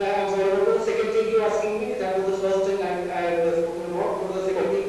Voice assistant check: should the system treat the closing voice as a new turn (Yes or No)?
Yes